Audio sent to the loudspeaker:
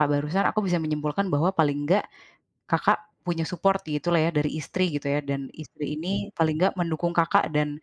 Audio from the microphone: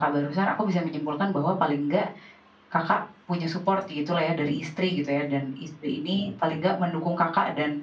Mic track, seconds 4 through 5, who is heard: echo only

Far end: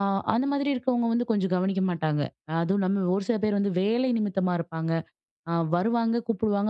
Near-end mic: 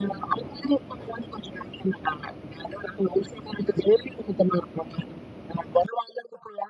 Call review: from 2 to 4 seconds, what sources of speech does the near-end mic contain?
echo only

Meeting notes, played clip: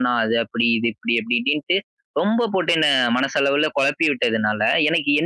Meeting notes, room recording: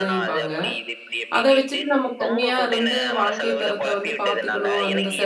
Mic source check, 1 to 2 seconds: both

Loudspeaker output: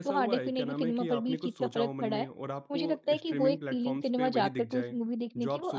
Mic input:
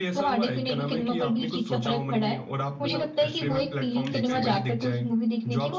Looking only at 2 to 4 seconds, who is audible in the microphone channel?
both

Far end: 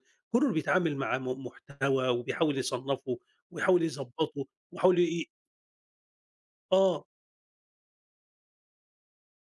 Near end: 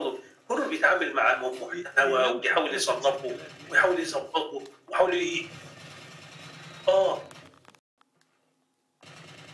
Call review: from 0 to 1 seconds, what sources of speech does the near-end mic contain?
echo only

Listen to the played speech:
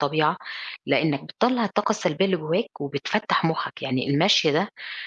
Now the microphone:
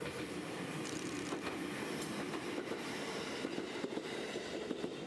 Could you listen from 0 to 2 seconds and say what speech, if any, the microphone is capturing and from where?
neither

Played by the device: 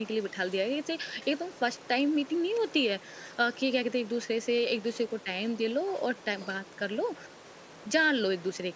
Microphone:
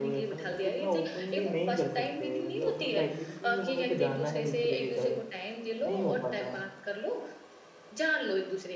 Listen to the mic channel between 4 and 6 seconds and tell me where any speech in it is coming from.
both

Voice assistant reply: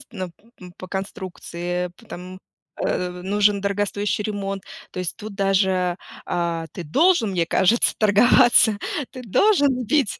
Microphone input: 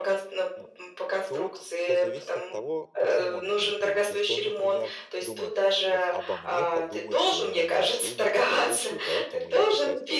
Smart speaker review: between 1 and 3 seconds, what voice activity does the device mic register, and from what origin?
both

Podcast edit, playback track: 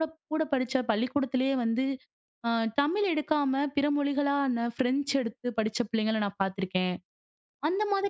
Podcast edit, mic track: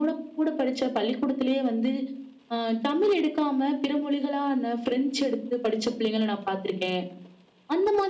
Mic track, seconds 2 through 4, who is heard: echo only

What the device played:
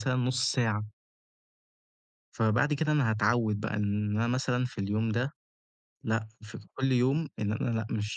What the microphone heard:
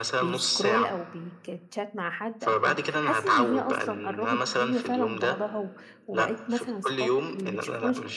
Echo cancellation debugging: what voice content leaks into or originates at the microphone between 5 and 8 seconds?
both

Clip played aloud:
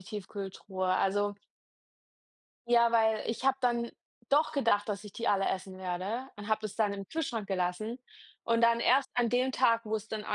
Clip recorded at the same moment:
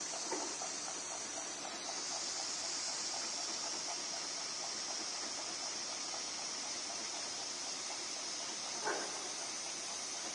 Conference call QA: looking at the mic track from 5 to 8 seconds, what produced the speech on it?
neither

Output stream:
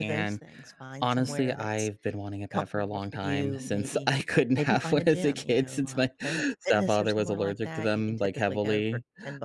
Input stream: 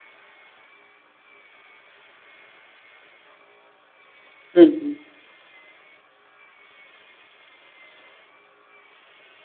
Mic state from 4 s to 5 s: user only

